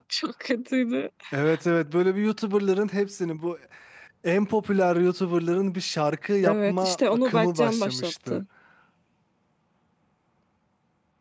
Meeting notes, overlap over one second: present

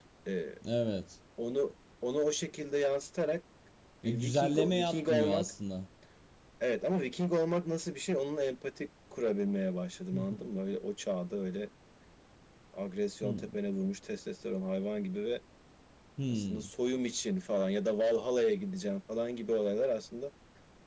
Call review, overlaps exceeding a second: present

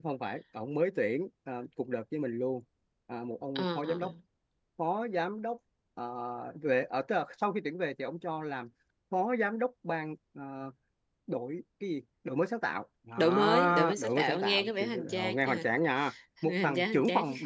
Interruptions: present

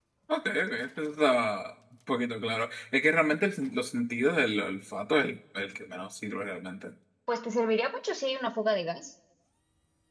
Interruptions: none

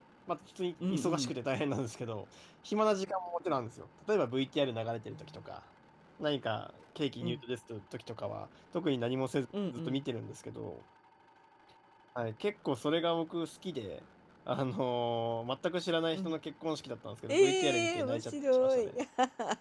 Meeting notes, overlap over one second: present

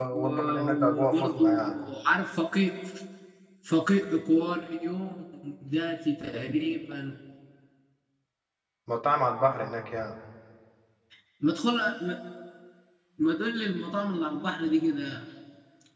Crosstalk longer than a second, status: present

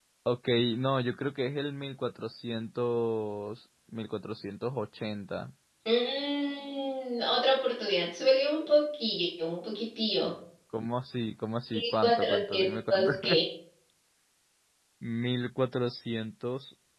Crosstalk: present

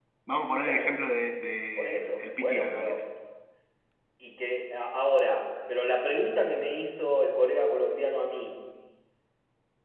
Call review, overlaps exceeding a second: present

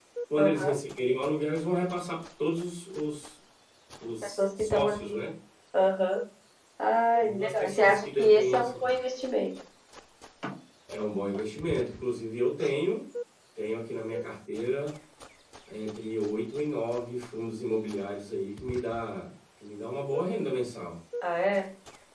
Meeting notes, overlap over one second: present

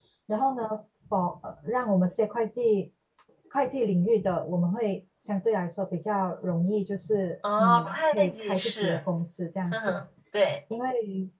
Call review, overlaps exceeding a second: present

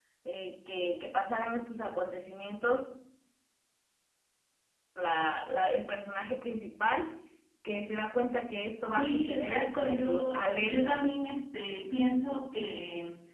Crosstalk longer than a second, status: present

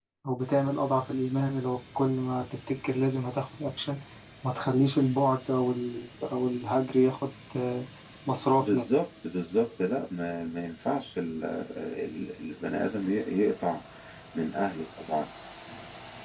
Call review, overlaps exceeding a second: none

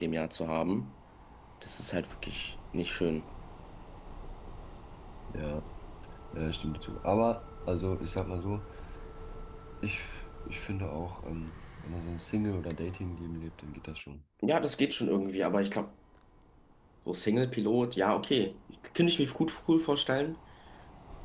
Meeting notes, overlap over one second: none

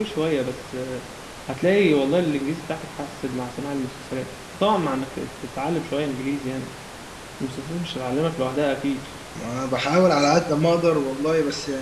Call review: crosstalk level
none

